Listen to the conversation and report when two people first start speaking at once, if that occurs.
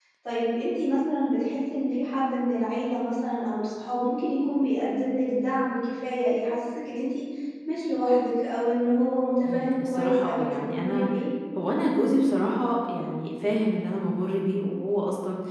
9.4 s

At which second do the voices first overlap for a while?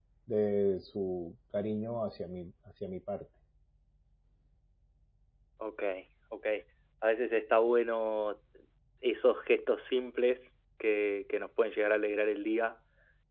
none

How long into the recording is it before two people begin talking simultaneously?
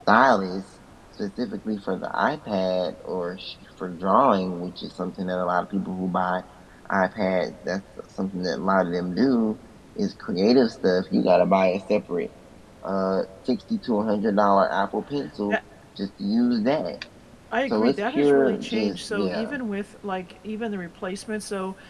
17.7 s

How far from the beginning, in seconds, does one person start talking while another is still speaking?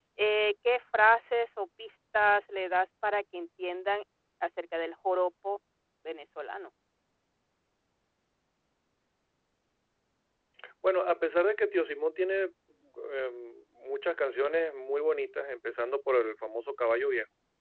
none

